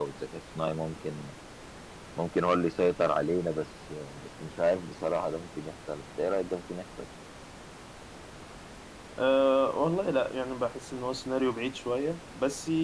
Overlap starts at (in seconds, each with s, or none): none